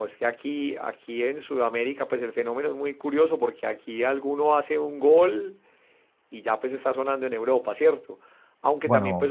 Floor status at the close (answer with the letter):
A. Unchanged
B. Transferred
A